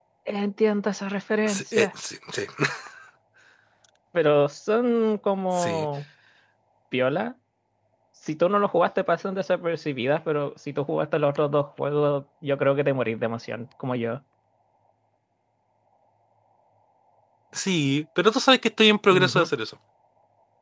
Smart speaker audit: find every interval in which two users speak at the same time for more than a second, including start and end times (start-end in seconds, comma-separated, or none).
none